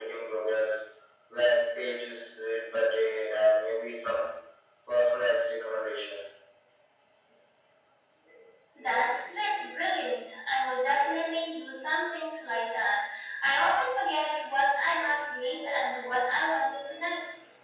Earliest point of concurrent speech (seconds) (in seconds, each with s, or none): none